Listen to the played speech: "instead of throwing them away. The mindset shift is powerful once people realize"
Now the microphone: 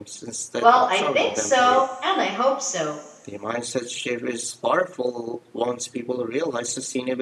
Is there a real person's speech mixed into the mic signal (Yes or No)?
Yes